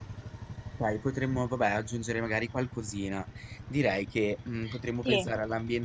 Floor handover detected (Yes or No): No